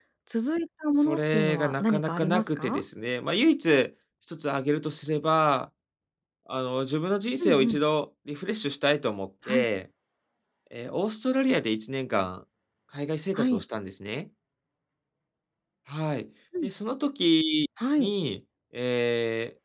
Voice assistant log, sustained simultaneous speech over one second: present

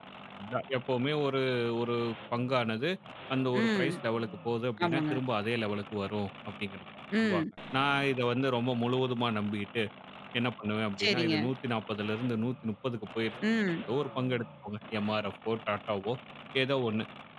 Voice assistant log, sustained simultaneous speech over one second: none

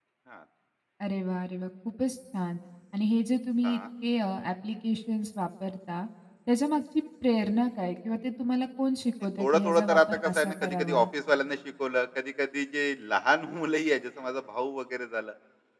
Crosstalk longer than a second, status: present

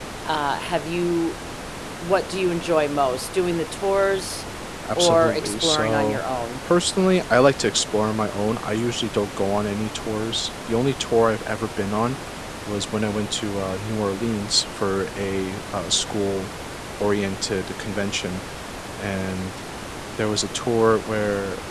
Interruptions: present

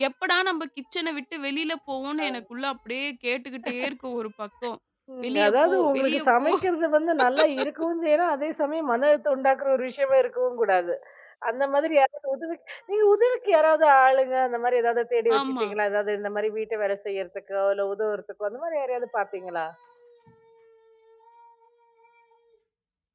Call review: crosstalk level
present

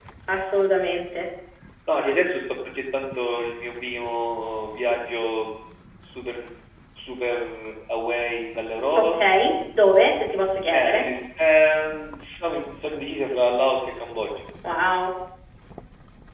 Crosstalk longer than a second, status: none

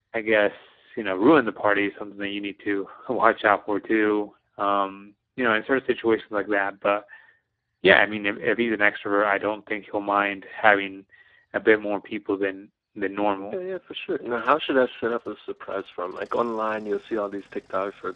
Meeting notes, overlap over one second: none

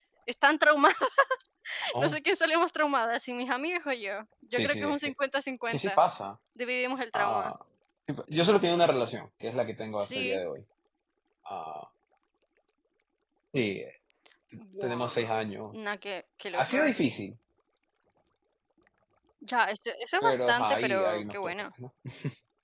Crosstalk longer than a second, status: present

